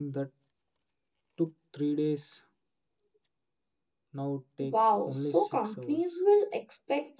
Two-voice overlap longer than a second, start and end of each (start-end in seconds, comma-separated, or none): 4.6-6.2